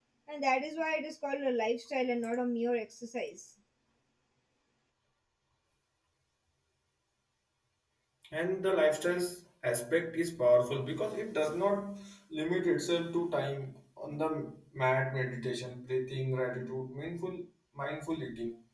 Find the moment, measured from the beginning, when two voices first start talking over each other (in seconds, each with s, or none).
none